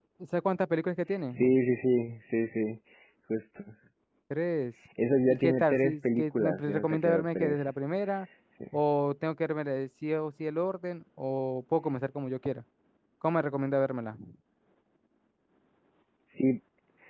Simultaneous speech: Yes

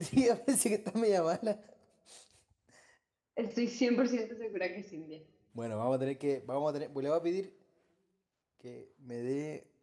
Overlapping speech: No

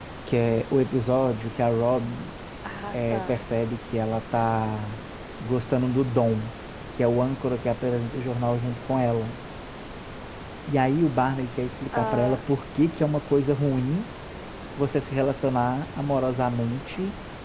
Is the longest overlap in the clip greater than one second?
No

